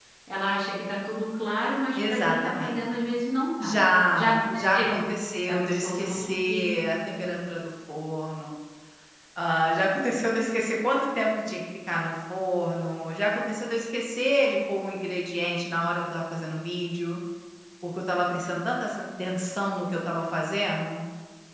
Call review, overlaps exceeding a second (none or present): present